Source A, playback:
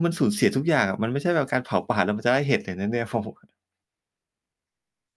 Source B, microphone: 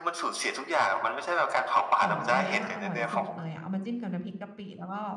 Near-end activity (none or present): present